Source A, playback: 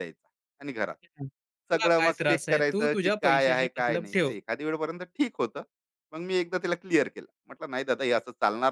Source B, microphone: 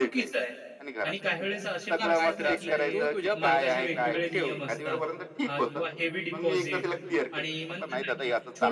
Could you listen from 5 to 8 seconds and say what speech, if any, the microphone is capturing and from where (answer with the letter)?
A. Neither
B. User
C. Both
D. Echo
C